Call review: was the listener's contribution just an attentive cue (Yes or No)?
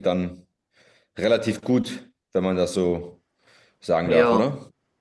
No